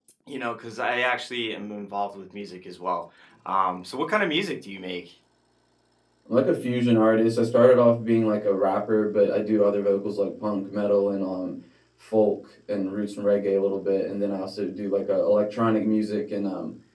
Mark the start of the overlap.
none

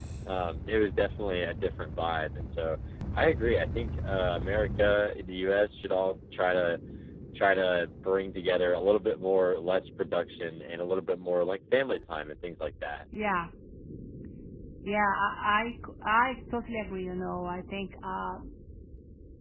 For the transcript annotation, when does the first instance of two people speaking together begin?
none

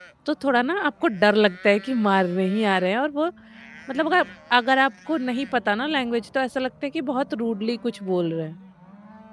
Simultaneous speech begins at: none

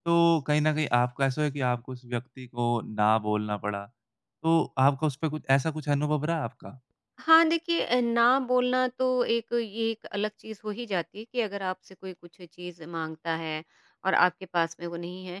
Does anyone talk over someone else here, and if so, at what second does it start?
none

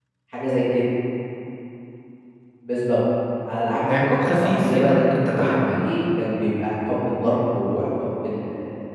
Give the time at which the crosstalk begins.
4 s

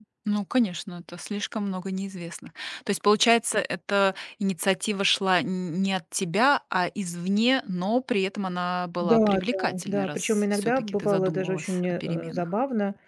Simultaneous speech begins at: 9 s

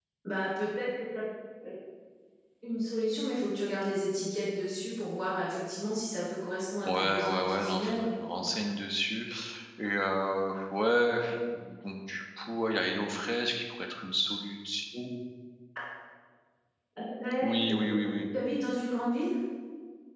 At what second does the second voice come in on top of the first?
7 s

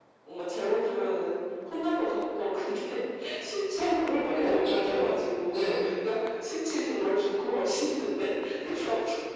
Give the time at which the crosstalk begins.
4 s

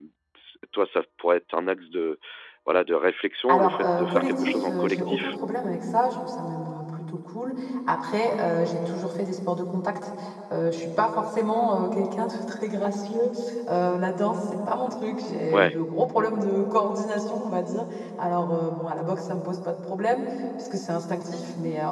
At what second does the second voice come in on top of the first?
4 s

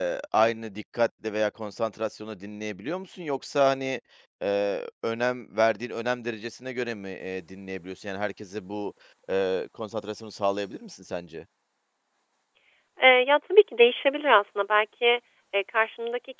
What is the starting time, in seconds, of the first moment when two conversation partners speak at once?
none

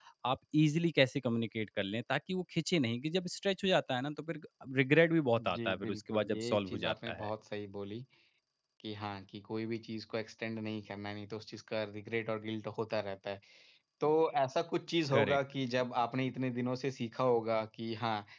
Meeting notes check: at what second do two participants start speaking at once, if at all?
5 s

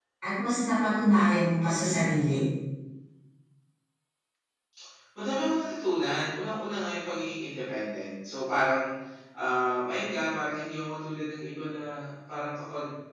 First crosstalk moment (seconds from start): none

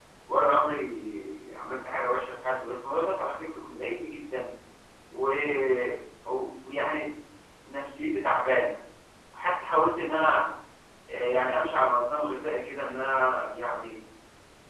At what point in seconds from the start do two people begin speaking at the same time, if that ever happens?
none

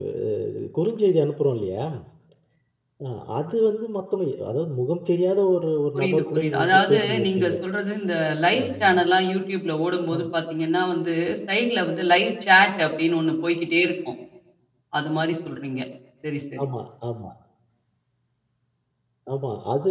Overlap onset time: 6 s

